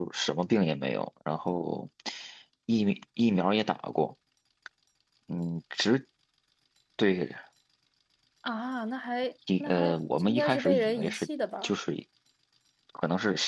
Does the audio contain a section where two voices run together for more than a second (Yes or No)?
Yes